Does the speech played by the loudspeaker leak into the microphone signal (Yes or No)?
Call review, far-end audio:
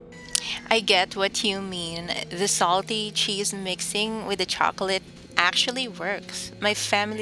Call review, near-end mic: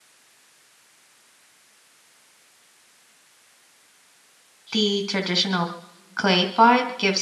No